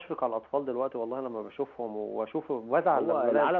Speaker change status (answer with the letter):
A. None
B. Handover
B